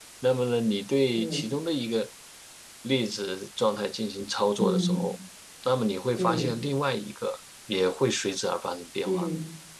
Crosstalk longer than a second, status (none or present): none